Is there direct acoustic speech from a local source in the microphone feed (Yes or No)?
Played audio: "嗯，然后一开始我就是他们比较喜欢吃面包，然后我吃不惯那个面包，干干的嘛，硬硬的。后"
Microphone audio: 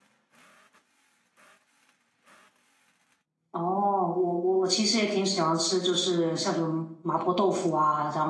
Yes